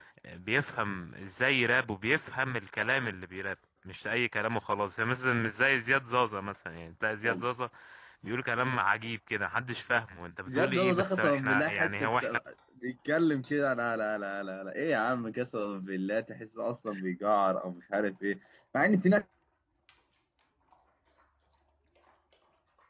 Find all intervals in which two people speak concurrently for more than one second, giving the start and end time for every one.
10.5-12.4

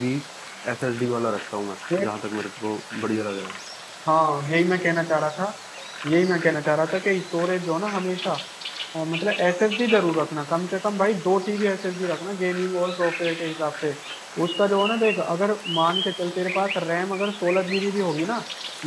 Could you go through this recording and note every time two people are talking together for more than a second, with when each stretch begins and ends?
none

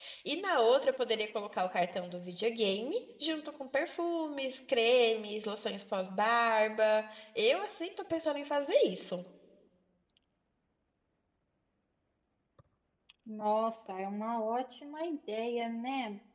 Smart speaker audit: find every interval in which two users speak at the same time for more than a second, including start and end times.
none

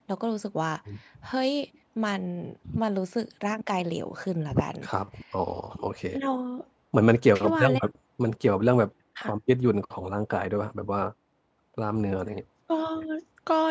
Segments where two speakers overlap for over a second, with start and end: none

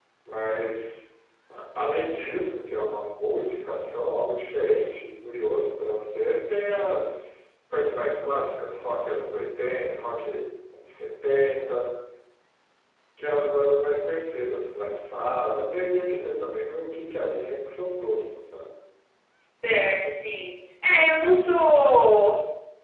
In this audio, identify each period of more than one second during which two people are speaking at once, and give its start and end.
none

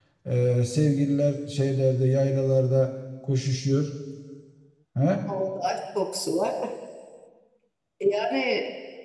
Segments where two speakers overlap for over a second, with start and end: none

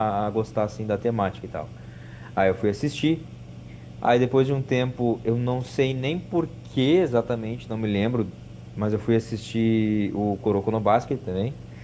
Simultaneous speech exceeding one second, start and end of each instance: none

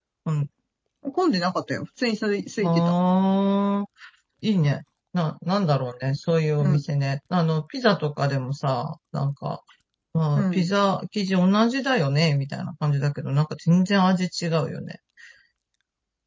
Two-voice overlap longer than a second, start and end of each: none

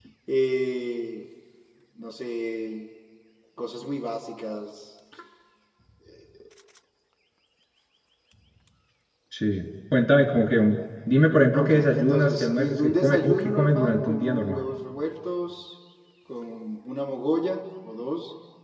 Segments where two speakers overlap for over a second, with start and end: 11.5-14.6

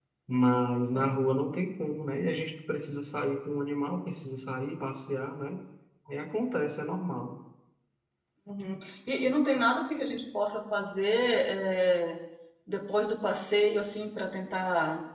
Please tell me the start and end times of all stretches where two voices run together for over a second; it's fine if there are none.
none

